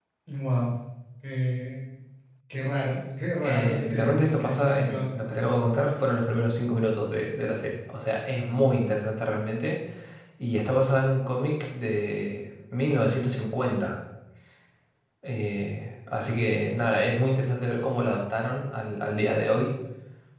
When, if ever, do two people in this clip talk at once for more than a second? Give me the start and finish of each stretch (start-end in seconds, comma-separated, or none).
3.4-5.0